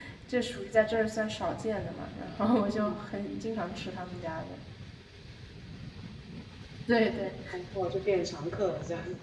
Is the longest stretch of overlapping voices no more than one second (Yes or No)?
Yes